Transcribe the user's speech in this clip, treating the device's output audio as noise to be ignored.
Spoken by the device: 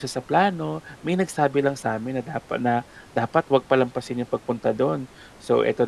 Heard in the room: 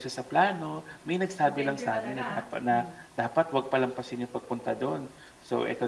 adventure talaga, ah. Hmm.

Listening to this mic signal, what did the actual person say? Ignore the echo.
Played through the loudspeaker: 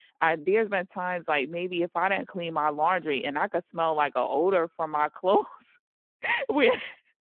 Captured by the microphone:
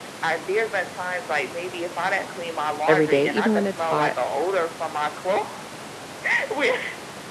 every day? Even when it's hot,

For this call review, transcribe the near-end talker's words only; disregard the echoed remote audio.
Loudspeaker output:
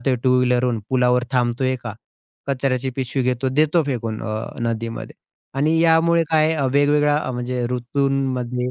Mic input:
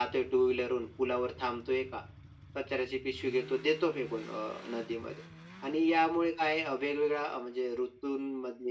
none

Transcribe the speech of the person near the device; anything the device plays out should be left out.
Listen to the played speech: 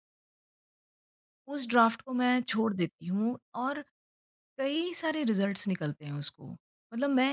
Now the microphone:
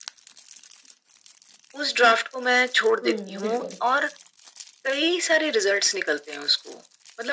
हुँ, बिल्कुल,

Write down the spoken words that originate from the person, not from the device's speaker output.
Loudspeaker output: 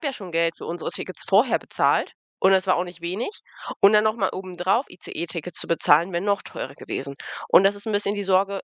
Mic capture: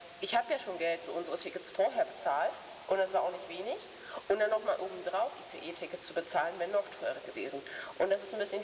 none

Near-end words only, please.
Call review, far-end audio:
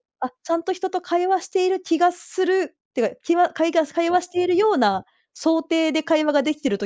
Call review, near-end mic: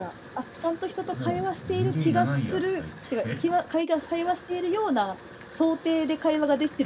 もう人間いらないやとか言って、

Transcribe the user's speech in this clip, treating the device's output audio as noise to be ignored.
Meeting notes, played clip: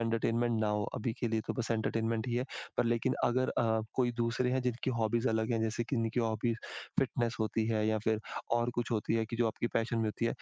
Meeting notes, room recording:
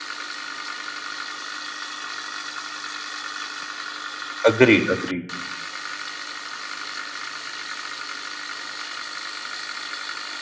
अग्रीड, अग्रीड।

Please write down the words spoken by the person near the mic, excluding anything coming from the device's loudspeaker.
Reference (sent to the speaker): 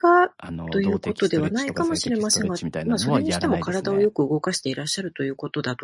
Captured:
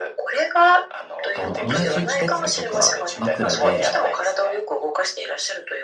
あの、同じベッドとか枕で

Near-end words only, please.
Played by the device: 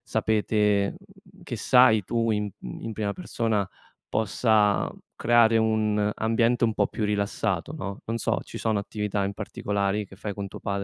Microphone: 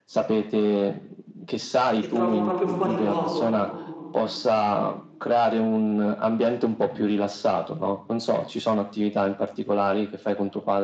che trovo proprio fuori luogo.

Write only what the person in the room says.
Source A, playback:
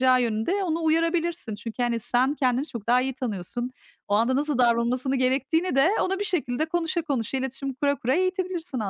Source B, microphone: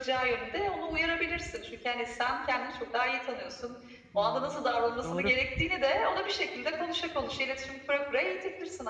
Hımm. Doğru.

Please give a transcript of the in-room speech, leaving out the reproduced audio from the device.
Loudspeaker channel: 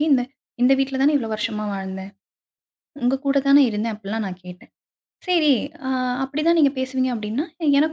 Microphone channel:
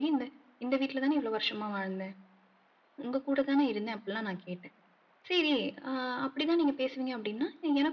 none

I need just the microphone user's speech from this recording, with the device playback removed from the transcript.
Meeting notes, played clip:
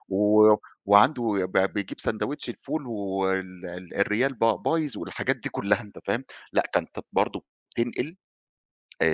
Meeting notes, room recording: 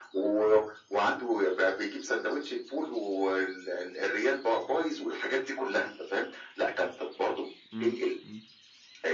إمم، إمم،

